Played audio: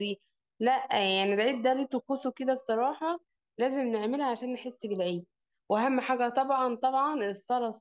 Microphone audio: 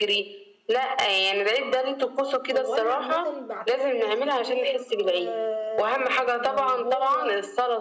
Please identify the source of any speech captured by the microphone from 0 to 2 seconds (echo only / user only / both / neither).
echo only